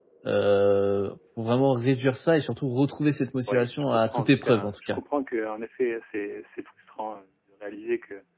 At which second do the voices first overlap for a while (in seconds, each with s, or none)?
3.5 s